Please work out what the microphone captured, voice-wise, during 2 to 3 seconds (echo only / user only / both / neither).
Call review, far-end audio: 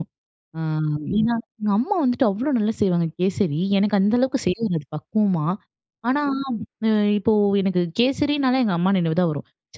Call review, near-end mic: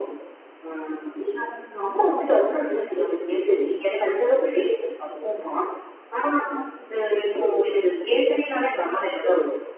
echo only